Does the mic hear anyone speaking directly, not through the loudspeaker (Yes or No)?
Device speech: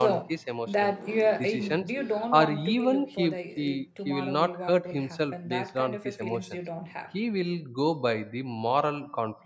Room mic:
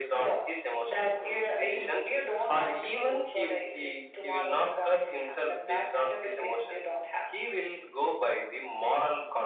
No